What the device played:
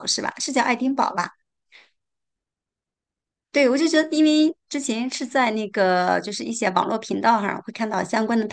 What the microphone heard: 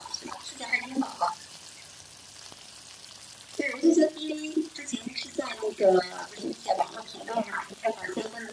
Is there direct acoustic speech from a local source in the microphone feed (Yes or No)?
No